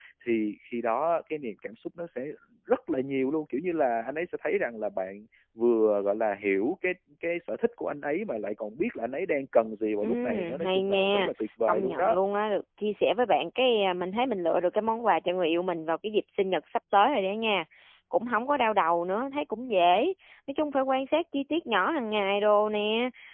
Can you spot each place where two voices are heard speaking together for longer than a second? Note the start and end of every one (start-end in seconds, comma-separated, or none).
10.0-11.3